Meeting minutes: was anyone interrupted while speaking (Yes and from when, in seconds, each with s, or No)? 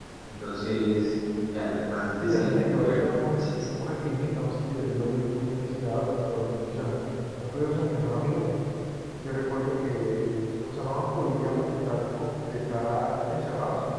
Yes, from 2.2 s